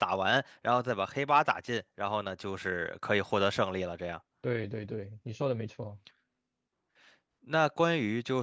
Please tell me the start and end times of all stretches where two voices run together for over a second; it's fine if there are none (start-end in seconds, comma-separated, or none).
none